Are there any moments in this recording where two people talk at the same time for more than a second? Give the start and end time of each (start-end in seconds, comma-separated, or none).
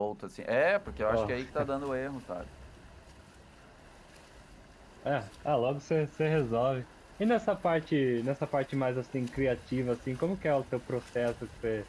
none